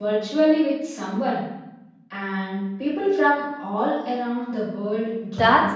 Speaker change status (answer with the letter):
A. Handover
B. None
A